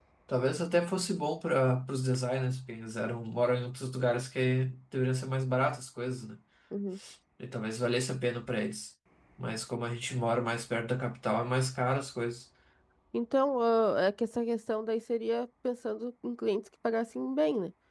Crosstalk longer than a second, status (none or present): none